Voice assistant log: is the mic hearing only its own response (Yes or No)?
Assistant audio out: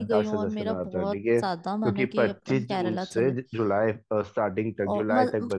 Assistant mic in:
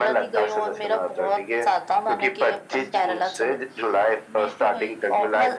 No